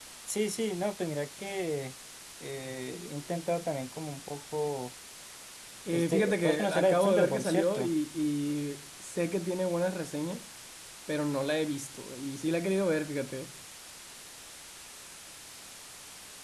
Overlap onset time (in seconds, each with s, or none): 5.9 s